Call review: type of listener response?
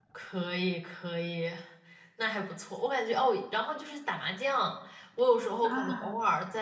listening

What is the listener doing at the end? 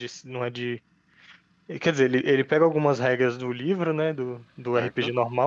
listening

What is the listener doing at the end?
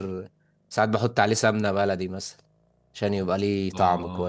taking over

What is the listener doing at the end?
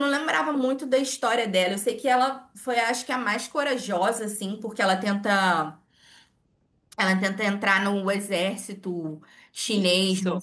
taking over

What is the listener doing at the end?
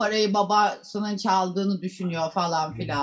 taking over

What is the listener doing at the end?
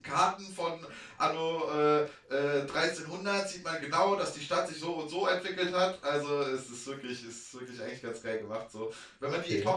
listening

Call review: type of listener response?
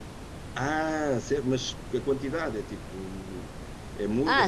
taking over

